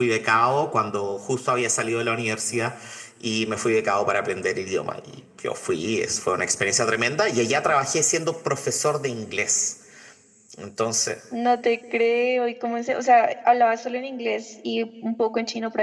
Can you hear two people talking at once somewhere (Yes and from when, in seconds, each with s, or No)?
No